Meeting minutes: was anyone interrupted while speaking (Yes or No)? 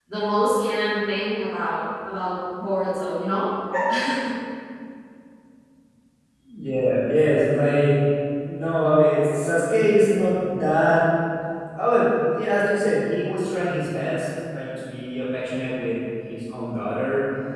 No